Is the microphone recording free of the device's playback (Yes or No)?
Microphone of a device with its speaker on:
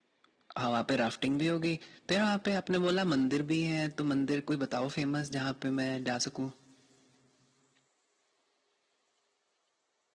No